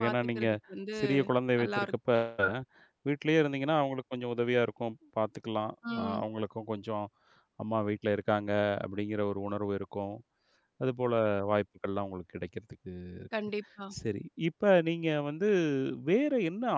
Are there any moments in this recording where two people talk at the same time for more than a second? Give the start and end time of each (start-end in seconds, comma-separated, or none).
none